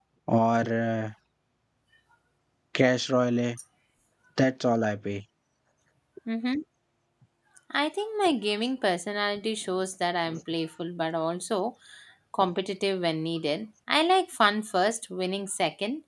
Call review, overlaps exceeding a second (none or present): none